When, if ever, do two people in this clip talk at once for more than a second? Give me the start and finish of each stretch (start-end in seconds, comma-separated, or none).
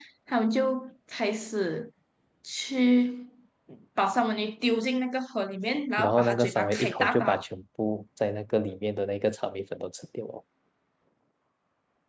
6.0-7.4